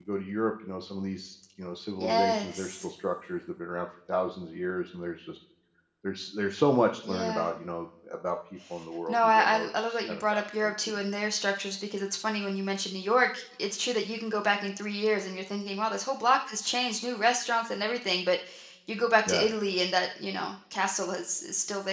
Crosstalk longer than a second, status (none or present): present